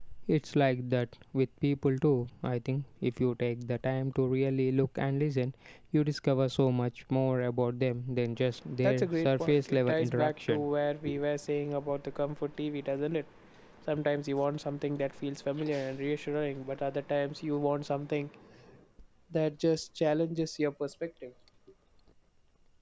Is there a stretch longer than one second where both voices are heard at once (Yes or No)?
Yes